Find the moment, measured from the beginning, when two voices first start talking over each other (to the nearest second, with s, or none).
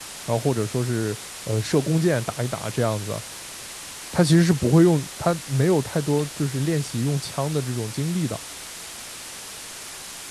none